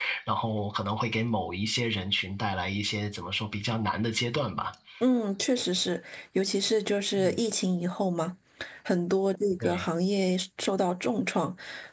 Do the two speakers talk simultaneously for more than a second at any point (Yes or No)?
No